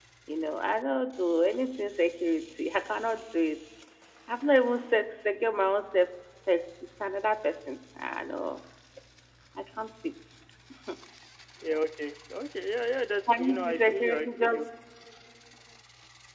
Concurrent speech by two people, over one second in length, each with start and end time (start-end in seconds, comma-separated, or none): 13.3-14.6